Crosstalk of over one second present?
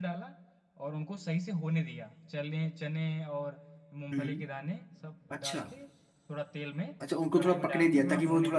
Yes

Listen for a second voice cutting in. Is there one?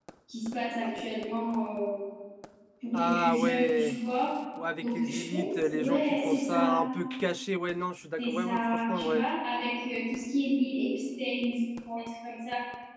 Yes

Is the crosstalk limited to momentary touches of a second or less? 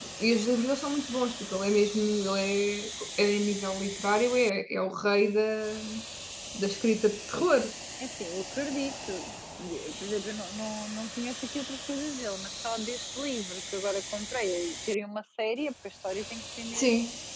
Yes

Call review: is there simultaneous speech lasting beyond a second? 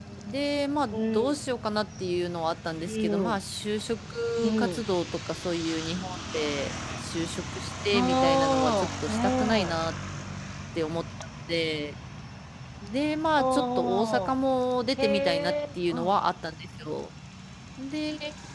Yes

